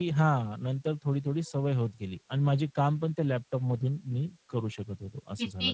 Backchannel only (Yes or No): No